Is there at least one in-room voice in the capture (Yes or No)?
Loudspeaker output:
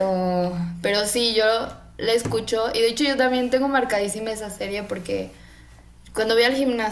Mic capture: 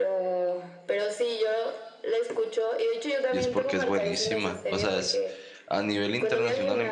Yes